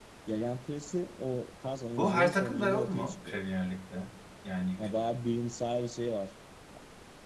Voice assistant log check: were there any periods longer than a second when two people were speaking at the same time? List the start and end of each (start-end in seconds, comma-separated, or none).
2.0-3.4